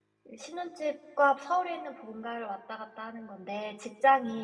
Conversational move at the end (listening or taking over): listening